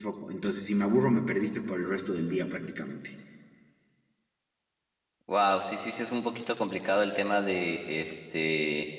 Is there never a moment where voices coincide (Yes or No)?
Yes